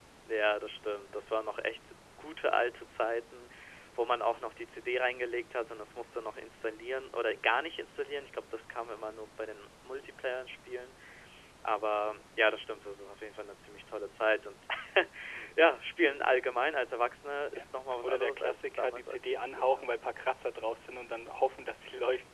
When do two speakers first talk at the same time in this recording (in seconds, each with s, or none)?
18.0 s